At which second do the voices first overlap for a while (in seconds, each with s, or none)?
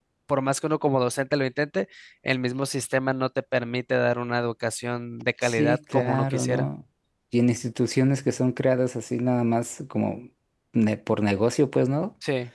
5.4 s